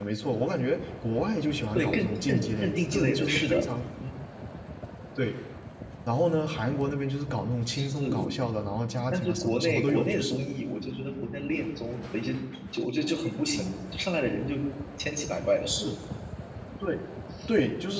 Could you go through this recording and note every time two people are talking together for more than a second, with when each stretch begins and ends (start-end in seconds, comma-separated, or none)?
1.8-3.6, 9.1-10.3